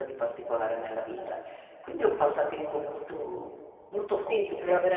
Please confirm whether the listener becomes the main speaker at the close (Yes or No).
Yes